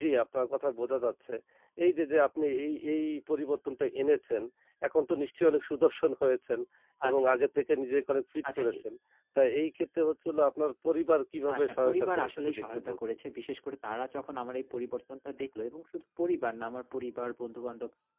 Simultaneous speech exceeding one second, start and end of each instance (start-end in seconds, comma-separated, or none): 11.5-13.1